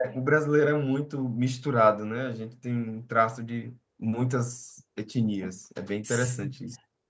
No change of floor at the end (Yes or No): No